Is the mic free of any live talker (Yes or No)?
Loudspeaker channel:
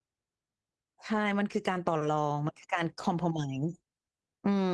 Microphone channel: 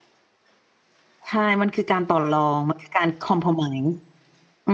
Yes